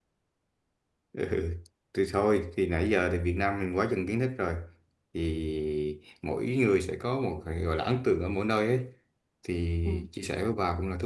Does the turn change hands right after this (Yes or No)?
No